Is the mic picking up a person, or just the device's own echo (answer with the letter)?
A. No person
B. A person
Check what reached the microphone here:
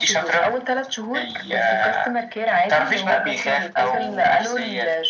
A